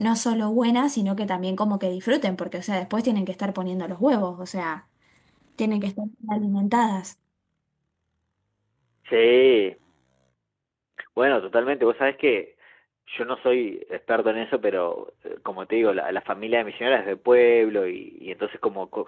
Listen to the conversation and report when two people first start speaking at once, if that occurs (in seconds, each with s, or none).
none